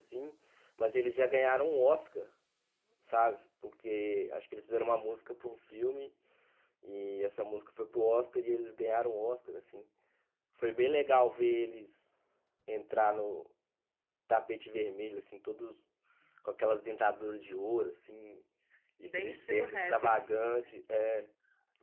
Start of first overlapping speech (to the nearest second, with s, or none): 19 s